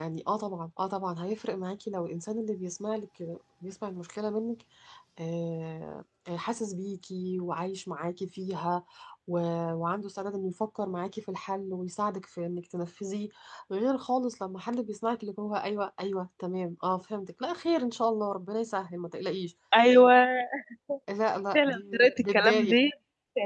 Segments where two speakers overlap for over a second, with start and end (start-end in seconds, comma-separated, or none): 21.5-22.8